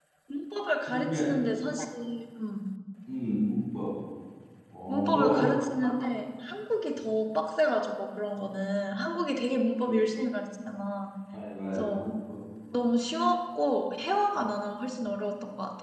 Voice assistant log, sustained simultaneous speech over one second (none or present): none